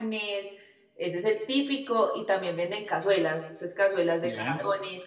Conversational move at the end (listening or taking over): listening